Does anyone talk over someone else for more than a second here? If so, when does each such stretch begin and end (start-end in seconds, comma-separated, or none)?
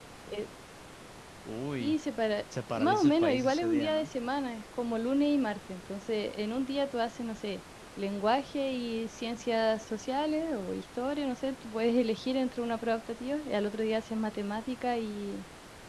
2.7-4.1